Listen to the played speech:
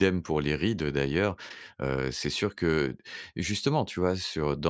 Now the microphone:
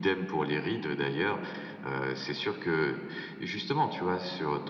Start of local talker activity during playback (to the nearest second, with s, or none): none